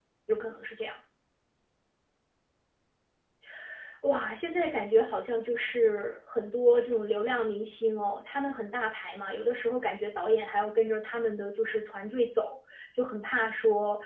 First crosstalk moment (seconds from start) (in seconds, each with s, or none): none